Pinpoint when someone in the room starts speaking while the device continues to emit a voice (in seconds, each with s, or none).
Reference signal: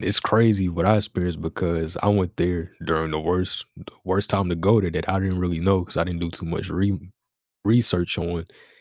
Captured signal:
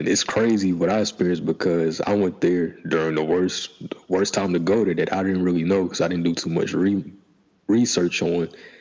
none